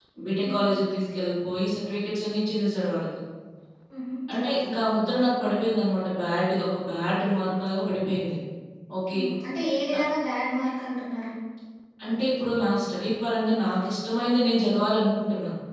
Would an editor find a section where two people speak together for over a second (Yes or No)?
No